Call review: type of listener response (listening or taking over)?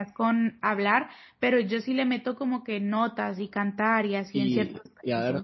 taking over